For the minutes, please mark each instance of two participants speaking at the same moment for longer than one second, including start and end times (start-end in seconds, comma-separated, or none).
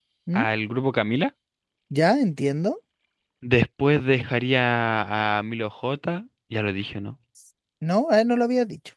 none